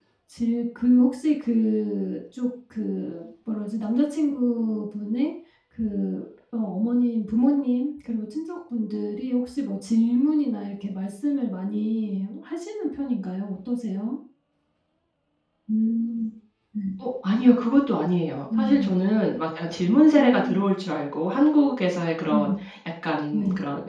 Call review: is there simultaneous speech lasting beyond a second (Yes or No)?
No